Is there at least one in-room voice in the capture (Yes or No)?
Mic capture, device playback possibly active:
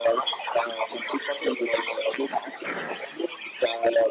No